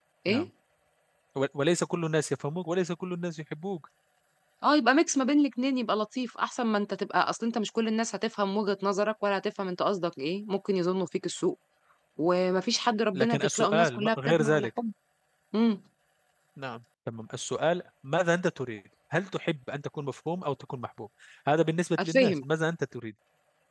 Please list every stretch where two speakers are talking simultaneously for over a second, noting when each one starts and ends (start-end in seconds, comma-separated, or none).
13.1-14.7